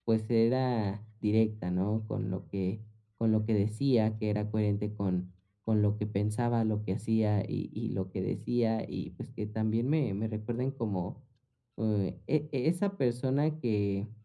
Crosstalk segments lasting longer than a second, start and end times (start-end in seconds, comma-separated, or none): none